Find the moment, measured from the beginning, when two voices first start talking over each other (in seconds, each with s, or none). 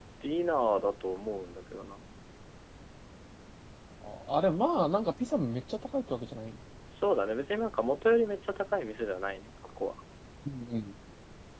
none